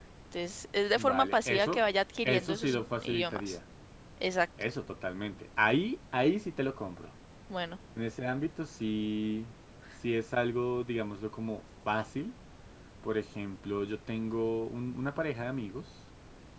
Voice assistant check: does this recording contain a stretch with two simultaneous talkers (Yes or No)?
Yes